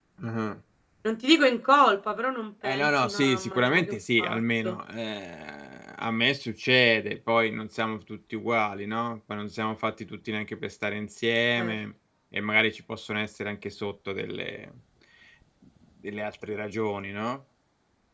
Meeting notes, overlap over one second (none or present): present